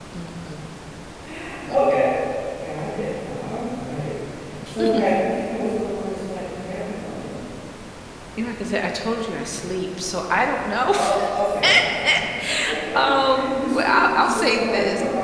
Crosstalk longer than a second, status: present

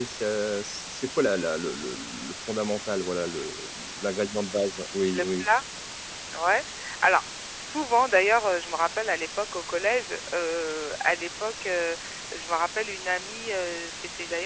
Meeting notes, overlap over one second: none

